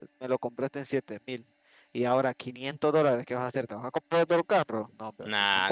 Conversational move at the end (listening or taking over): taking over